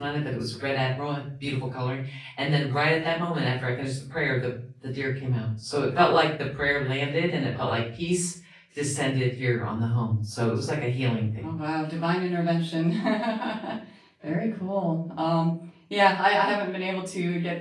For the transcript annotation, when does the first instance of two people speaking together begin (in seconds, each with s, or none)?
none